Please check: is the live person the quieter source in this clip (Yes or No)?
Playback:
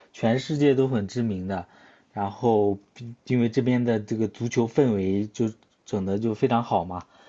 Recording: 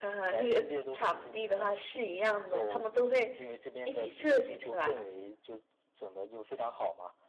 No